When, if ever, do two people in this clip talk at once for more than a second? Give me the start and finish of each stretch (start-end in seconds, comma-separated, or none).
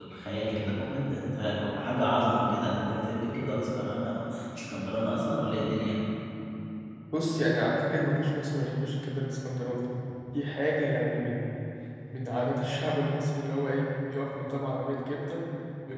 none